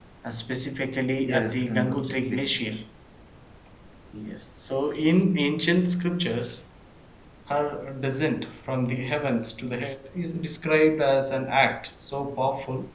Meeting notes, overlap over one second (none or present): present